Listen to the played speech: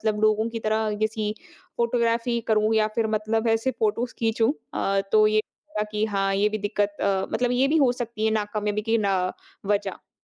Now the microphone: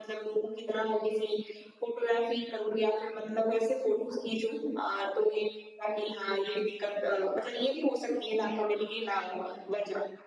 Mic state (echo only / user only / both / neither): echo only